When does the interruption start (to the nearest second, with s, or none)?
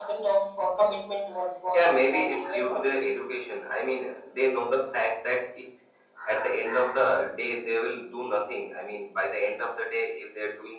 2 s